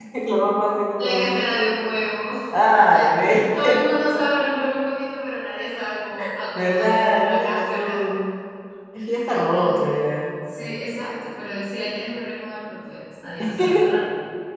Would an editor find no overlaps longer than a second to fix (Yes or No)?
No